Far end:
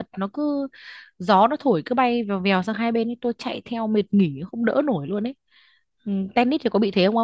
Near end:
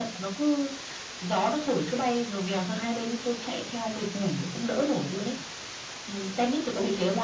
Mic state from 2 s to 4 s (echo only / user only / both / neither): echo only